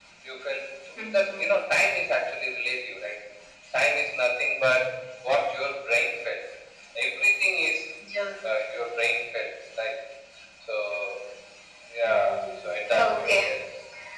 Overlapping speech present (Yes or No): Yes